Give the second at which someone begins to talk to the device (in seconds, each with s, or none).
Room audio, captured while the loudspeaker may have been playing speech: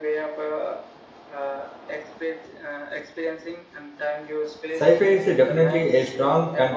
4.8 s